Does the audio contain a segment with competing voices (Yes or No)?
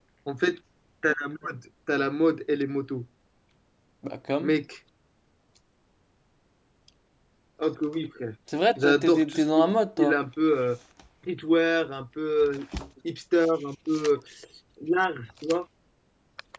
Yes